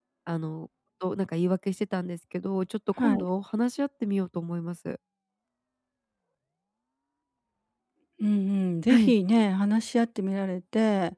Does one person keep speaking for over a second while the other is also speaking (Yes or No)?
No